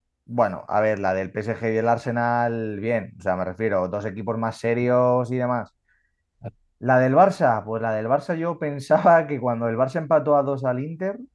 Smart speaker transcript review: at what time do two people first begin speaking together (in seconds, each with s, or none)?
none